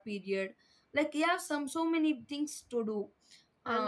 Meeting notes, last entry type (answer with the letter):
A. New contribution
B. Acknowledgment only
A